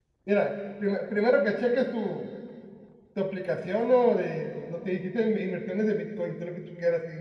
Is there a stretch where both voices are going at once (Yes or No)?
No